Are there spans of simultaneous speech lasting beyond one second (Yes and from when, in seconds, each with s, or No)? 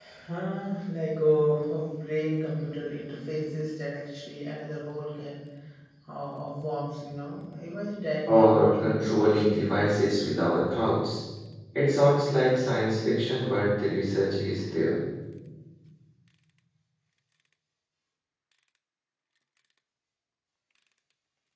Yes, from 8.3 s